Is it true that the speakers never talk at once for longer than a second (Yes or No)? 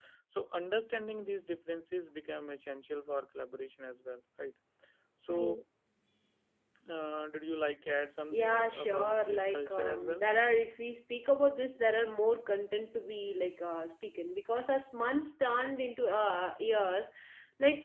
No